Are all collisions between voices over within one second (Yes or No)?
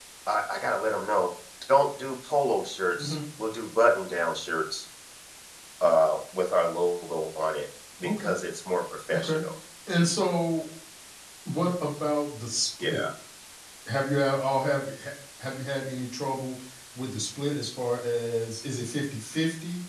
Yes